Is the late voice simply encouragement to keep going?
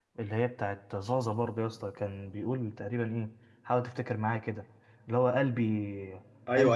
No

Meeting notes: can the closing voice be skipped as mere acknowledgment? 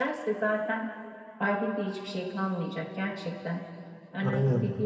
Yes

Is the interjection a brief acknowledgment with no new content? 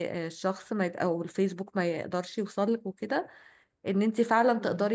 Yes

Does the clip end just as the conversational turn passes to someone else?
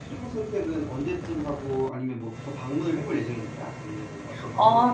Yes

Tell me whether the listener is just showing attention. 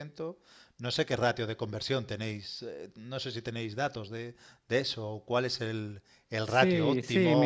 No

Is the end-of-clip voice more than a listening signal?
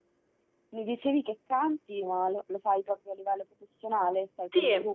Yes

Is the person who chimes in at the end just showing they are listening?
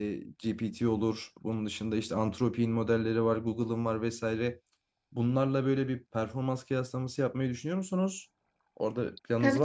No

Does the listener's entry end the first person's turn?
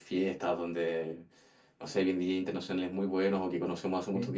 No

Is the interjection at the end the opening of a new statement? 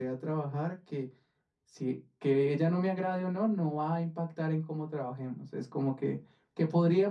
No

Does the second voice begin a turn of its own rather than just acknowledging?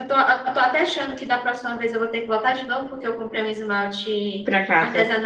No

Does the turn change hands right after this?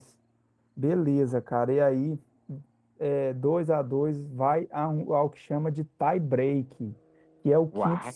No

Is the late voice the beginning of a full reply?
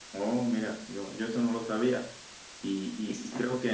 No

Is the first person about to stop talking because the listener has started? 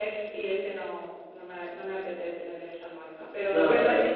No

